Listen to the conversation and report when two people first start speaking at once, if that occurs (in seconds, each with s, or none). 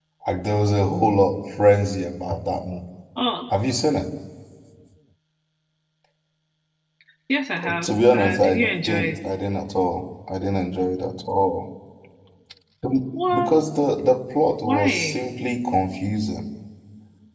7.6 s